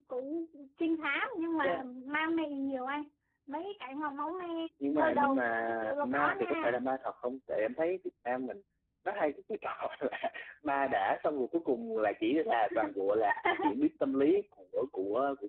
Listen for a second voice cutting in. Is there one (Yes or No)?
Yes